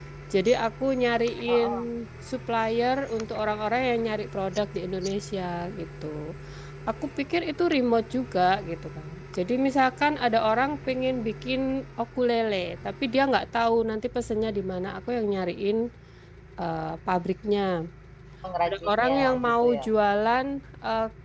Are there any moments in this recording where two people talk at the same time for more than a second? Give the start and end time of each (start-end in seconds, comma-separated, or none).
18.6-19.8